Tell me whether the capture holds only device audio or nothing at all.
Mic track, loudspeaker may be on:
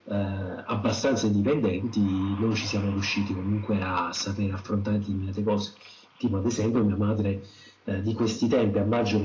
Yes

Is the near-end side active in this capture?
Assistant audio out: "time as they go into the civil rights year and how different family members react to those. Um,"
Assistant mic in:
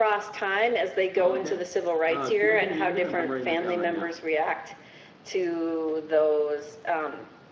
Yes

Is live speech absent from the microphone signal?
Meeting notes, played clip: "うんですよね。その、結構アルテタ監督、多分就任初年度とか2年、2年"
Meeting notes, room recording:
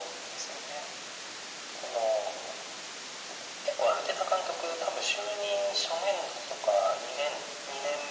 Yes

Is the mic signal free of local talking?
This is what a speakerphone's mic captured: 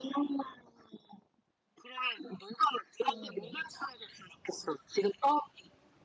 No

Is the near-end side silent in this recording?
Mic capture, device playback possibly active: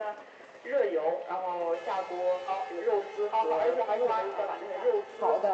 No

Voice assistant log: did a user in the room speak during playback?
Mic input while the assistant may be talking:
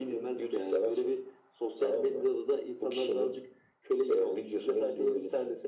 No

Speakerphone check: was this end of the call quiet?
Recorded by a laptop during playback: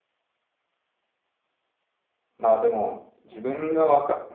Yes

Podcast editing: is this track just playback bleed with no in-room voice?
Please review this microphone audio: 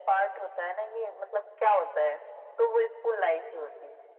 Yes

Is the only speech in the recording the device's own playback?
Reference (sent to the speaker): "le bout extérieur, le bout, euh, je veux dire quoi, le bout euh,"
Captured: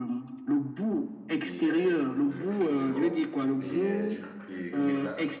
No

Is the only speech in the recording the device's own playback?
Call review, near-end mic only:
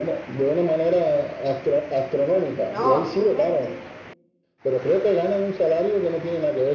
No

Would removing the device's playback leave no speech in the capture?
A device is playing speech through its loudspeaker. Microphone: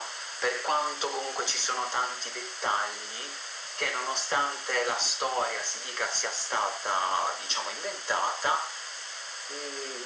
Yes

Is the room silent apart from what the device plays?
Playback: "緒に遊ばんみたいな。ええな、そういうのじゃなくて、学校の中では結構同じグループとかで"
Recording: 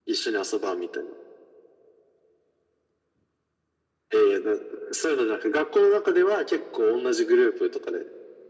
Yes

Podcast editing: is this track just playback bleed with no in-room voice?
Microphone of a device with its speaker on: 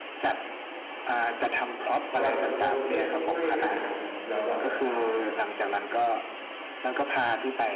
No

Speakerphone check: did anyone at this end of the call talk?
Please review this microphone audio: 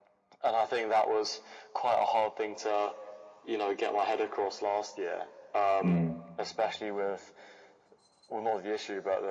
Yes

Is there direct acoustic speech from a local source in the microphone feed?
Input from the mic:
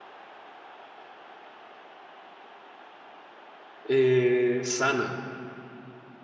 Yes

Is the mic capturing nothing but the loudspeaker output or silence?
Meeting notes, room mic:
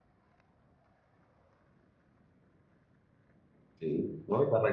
No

